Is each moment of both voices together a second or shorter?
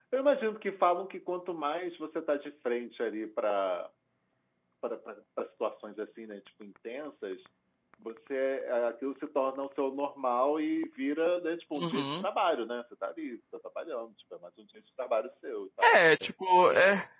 Yes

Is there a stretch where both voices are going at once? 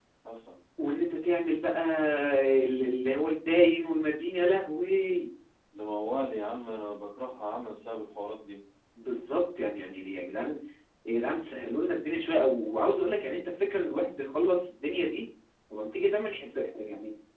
No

